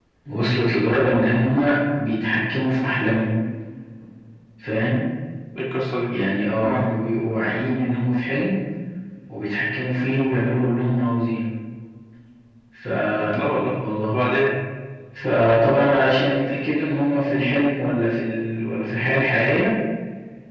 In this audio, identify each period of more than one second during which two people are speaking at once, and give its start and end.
none

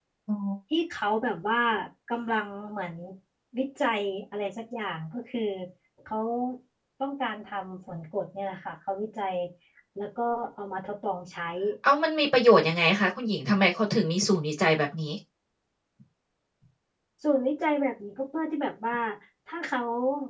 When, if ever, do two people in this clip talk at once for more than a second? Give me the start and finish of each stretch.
none

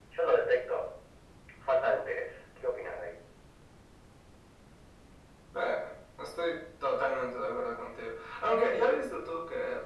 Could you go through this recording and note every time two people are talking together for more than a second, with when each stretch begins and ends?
none

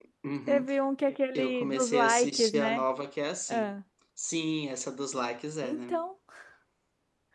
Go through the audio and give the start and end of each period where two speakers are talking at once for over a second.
1.4-2.8

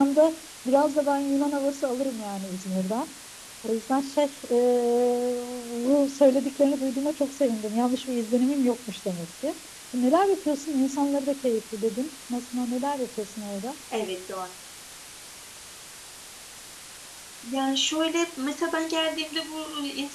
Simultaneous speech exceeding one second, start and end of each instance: none

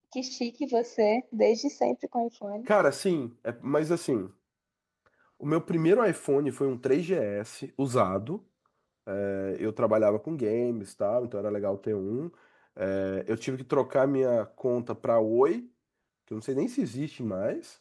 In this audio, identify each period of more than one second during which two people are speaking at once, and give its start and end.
none

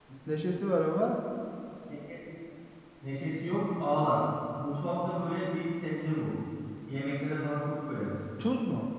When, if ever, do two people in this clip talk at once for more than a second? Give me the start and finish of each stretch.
none

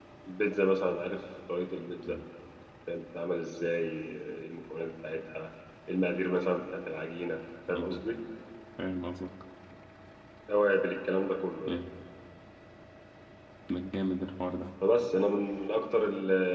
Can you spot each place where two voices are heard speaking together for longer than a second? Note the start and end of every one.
none

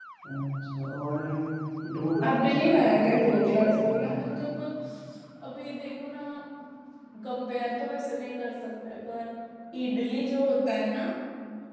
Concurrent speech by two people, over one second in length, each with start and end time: 2.2-4.2

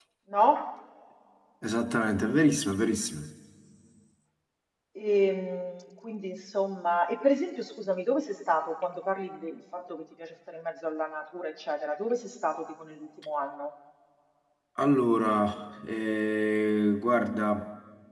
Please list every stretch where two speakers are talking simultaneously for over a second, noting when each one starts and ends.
none

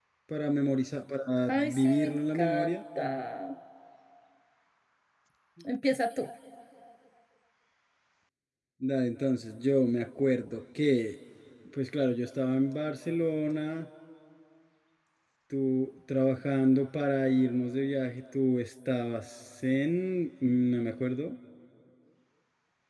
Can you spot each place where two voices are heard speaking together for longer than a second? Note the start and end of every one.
1.5-2.8

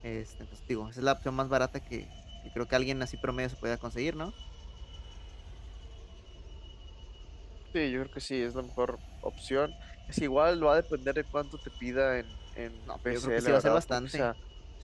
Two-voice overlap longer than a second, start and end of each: 13.1-14.3

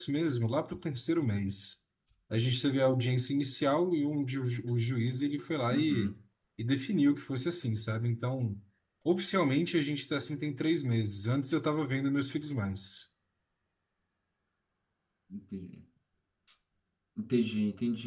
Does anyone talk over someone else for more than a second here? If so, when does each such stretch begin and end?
none

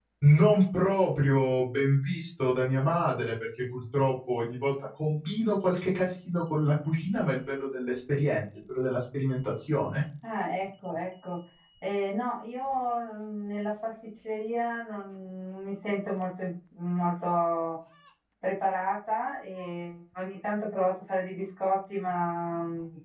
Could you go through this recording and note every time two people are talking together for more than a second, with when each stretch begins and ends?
none

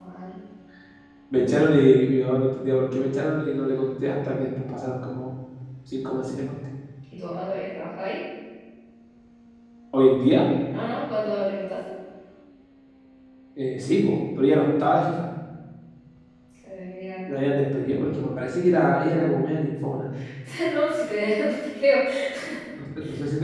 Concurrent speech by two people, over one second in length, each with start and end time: none

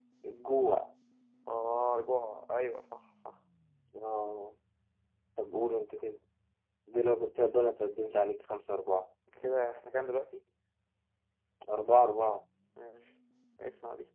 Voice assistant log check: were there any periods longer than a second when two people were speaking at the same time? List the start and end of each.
none

